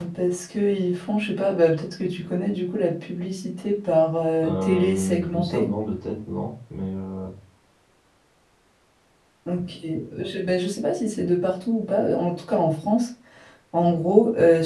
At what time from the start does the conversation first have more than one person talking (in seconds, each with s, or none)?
4.4 s